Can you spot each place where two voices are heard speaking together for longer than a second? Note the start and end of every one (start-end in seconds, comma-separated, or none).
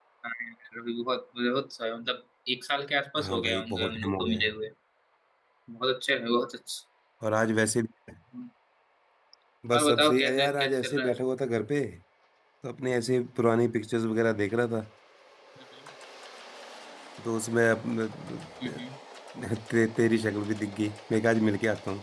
3.2-4.5, 9.7-11.2